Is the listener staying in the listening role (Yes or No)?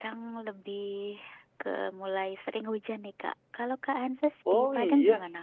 No